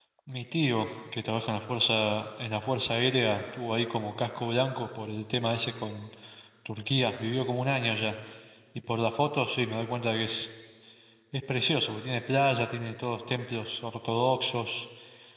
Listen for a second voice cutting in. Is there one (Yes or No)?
No